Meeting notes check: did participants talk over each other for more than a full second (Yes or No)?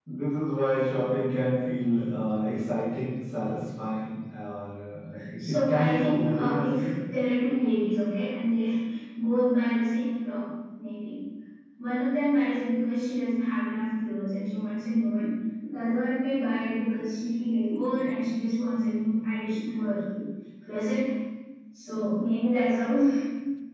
Yes